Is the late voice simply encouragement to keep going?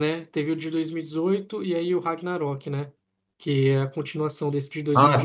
No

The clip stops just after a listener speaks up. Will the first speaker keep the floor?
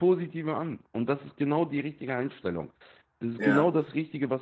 Yes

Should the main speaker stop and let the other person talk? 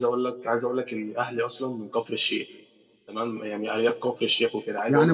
Yes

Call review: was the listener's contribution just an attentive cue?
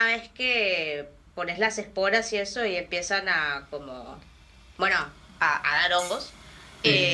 Yes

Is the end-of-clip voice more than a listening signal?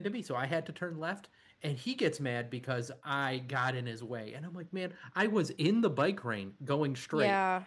No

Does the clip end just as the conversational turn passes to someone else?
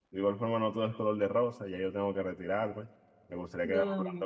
No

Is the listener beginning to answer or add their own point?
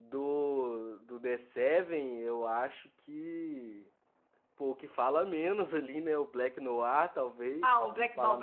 Yes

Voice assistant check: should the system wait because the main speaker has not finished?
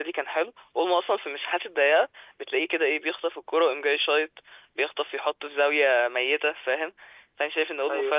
Yes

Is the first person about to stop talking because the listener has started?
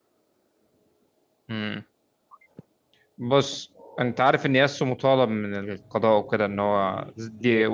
No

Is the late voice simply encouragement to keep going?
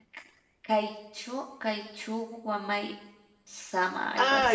No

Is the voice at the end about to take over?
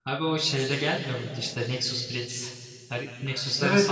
Yes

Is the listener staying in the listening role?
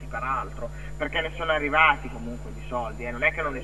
Yes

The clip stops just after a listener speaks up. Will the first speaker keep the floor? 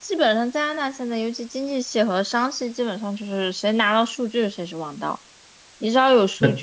Yes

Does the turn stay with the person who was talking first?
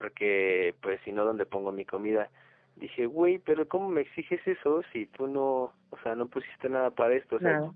Yes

